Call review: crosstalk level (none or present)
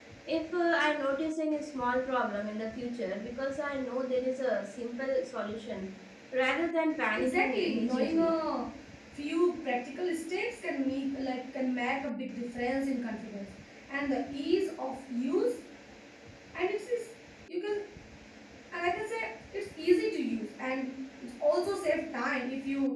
present